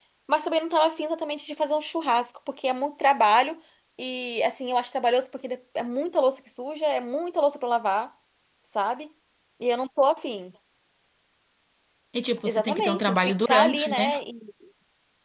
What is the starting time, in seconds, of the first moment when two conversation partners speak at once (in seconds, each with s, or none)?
12.4 s